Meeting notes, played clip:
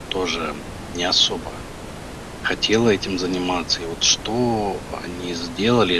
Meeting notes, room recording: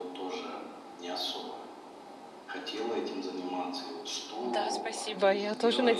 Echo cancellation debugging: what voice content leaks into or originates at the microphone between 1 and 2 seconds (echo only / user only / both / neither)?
echo only